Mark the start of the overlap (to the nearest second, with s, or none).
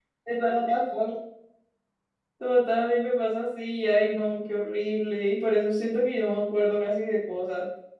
none